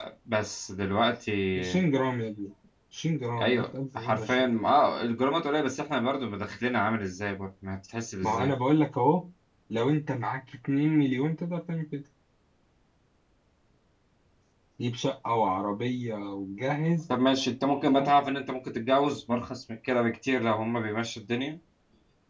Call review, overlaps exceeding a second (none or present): present